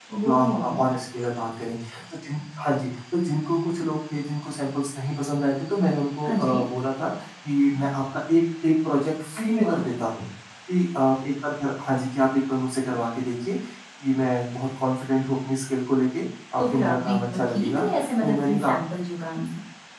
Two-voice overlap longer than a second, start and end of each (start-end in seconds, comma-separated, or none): 16.6-18.7